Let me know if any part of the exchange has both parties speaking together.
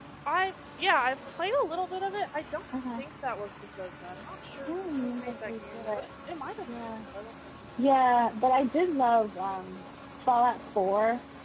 Yes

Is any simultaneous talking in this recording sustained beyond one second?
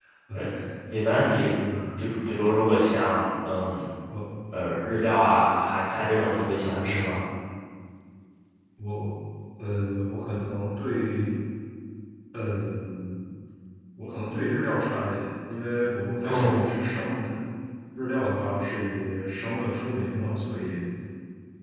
No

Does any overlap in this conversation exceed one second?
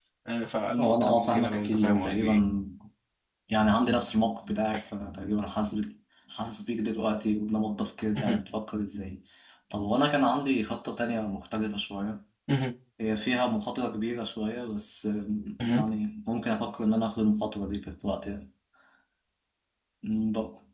Yes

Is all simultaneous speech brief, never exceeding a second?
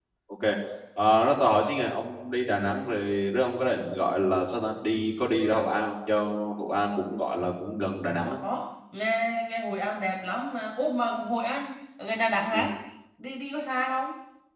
Yes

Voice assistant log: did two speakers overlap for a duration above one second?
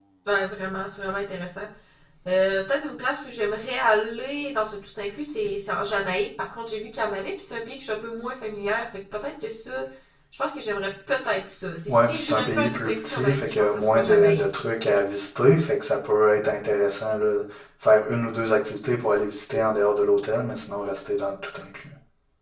Yes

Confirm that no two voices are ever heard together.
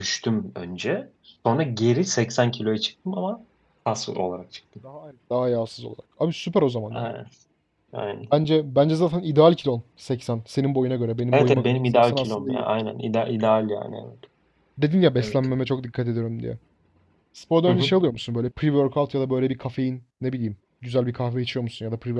No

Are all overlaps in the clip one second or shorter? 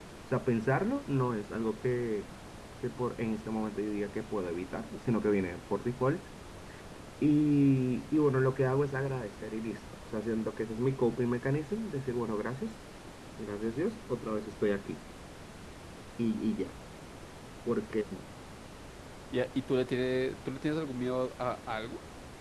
Yes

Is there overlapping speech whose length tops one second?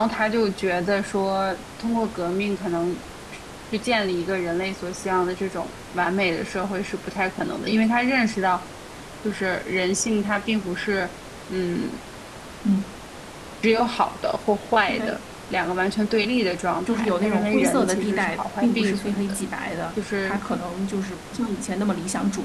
Yes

